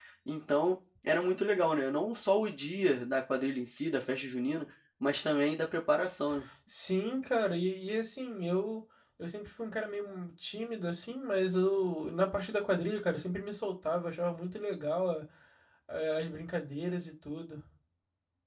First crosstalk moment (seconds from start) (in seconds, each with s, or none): none